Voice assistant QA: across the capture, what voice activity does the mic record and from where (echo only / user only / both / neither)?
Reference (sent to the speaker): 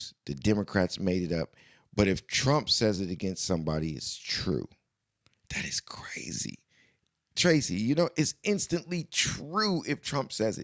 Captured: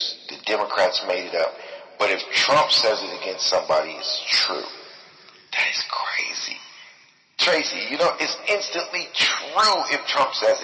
echo only